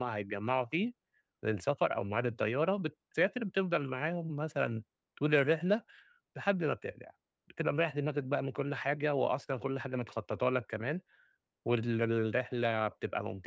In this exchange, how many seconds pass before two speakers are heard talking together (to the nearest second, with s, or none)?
none